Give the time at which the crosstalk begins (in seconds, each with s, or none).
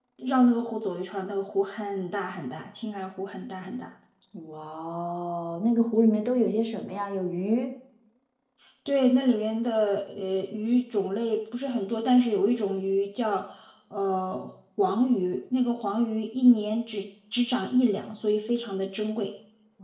none